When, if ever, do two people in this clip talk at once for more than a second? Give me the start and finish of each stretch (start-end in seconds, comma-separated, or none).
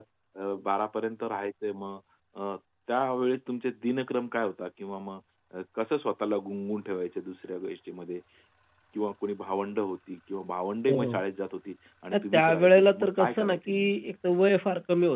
12.1-13.9